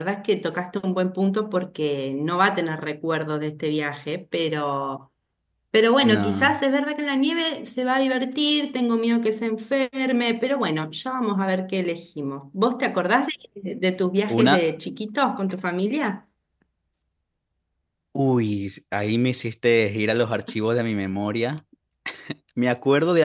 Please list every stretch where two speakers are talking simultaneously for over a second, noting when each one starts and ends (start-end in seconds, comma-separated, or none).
none